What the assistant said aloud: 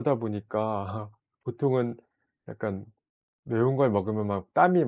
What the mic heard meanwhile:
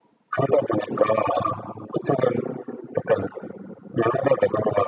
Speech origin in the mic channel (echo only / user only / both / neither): echo only